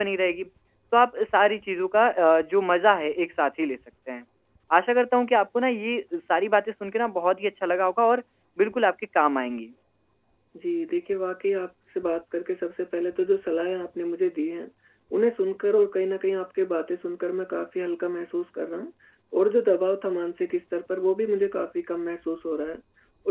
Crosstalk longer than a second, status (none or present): none